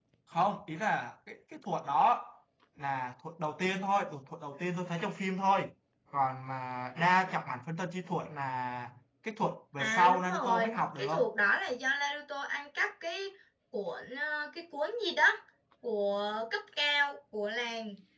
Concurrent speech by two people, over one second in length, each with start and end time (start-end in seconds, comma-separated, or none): 9.8-11.1